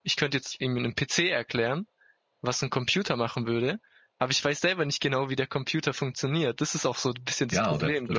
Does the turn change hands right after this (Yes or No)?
Yes